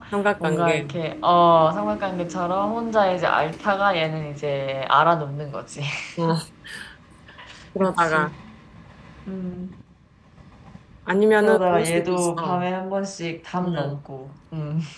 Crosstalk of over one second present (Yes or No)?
Yes